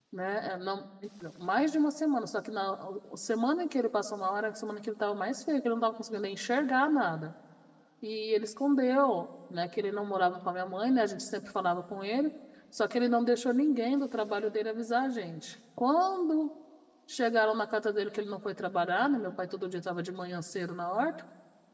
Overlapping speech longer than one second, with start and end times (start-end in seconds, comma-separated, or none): none